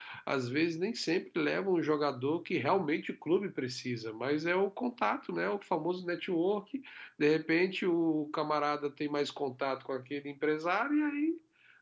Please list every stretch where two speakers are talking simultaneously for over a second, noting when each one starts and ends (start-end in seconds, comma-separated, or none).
none